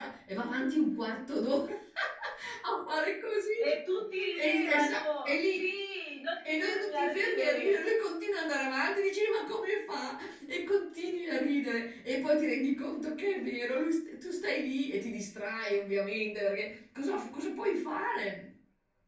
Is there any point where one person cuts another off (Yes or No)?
Yes